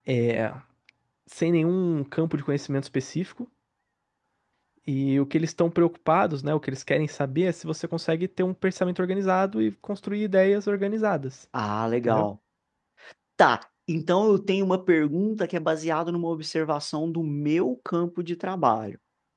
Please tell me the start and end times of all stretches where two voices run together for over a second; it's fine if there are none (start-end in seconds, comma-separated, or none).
none